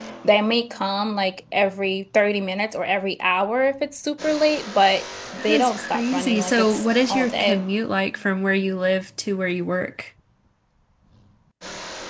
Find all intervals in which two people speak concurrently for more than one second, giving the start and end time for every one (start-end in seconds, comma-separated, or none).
5.4-7.6